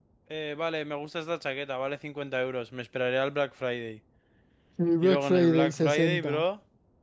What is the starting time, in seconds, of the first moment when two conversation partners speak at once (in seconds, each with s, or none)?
5.0 s